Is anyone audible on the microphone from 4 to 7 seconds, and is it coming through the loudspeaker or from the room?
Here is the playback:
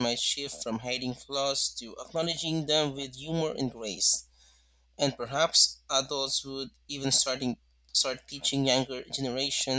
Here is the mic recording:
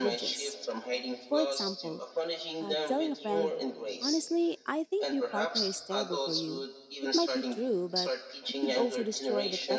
both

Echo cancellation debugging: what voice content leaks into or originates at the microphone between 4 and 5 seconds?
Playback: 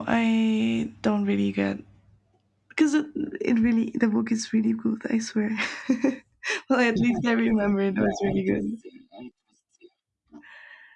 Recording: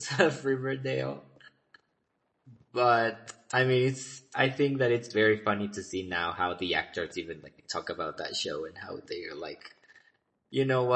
user only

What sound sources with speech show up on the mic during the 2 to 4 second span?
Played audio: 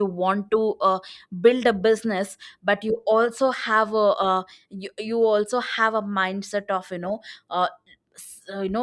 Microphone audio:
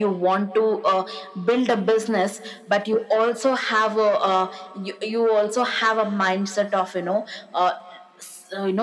echo only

